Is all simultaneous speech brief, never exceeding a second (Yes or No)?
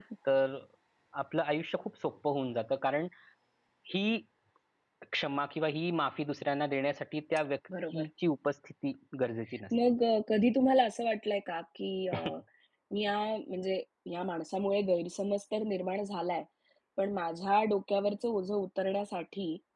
Yes